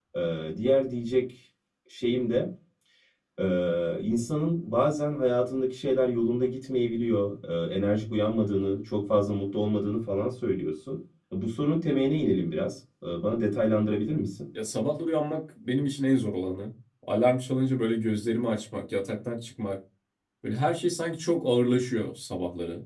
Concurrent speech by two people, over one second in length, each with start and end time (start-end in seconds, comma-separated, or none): none